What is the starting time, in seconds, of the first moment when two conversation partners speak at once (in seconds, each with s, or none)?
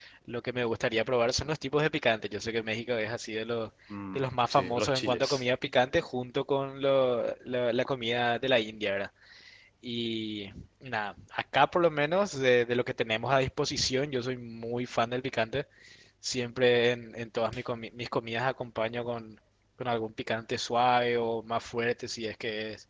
4.1 s